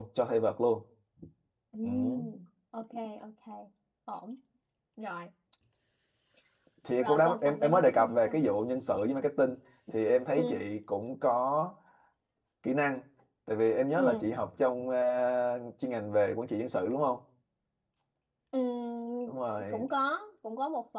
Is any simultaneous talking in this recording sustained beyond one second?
Yes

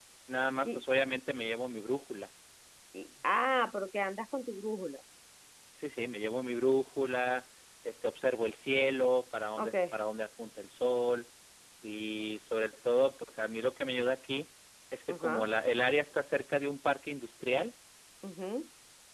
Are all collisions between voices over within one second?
Yes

